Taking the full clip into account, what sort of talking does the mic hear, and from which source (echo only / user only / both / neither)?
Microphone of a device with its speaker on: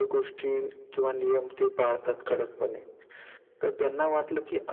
echo only